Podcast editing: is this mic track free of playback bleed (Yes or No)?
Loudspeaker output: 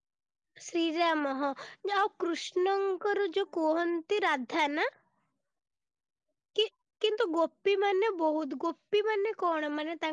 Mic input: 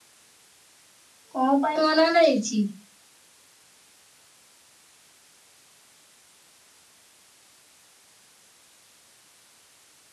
Yes